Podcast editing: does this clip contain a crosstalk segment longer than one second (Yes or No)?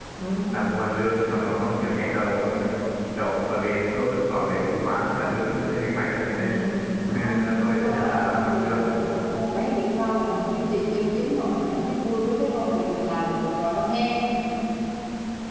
Yes